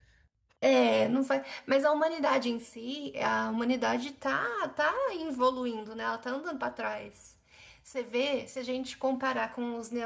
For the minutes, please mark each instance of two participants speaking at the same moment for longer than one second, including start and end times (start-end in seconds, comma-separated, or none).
none